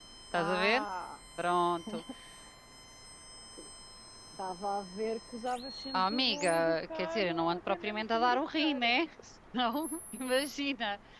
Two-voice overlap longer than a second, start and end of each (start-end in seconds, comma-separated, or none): 6.0-8.8